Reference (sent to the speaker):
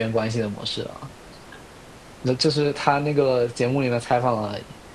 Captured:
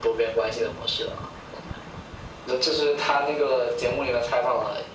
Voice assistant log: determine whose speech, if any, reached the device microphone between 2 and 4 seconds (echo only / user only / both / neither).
echo only